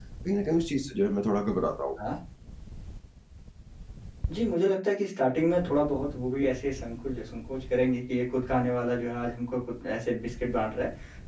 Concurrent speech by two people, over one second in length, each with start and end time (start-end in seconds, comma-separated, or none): none